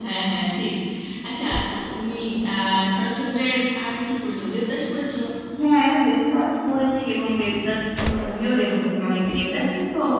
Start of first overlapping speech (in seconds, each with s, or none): none